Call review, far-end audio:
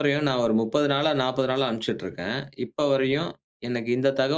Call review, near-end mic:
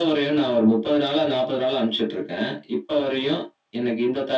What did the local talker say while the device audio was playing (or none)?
none